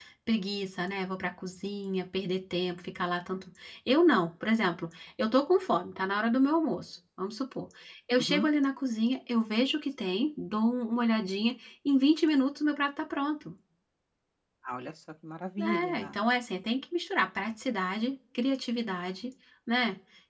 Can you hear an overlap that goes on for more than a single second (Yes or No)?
No